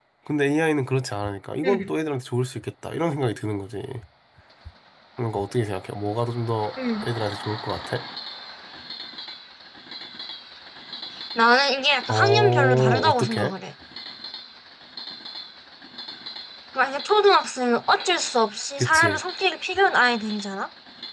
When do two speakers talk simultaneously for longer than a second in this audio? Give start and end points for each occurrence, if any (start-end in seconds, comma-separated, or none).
12.1-13.5